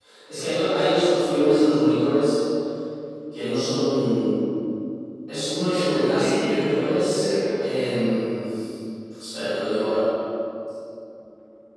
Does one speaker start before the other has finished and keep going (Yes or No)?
Yes